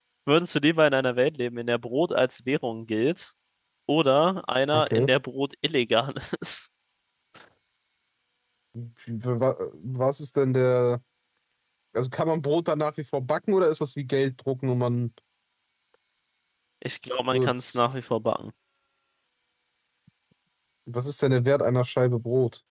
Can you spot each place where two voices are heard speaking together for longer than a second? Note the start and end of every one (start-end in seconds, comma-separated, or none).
none